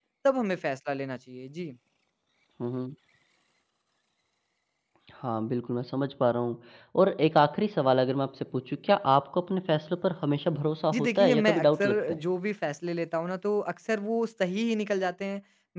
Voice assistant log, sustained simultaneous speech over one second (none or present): present